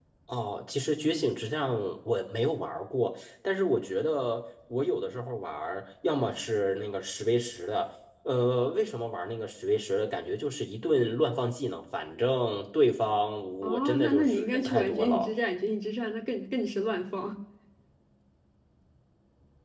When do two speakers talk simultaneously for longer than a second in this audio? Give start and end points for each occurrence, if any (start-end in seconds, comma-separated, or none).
13.6-15.3